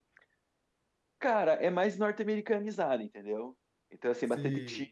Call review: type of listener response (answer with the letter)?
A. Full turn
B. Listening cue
B